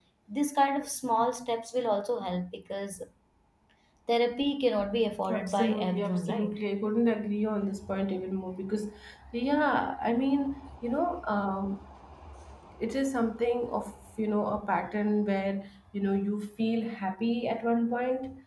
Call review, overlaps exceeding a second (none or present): present